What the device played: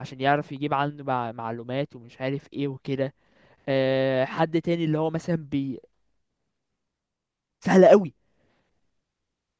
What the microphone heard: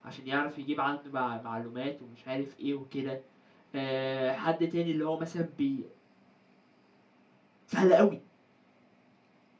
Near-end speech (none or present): none